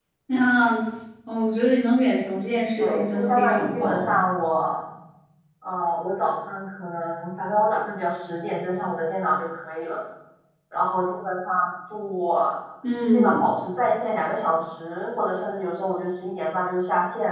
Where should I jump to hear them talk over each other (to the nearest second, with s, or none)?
3 s